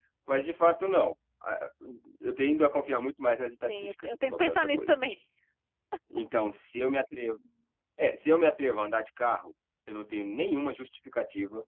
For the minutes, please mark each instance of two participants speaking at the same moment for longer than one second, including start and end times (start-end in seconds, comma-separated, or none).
3.6-5.0